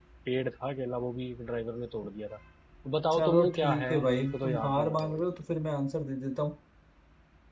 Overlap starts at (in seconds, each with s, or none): 3.1 s